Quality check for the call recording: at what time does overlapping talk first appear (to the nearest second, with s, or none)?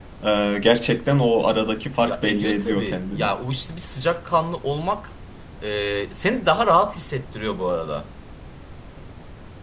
2 s